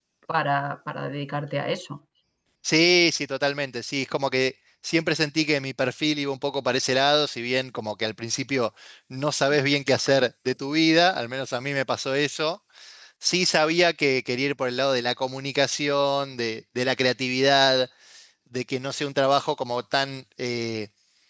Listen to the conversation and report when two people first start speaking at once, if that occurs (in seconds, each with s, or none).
none